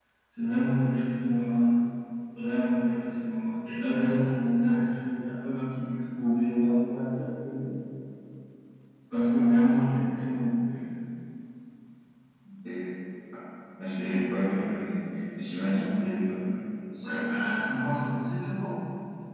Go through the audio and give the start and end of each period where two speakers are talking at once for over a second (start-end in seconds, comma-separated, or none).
none